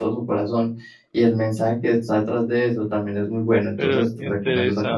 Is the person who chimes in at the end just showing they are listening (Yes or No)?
No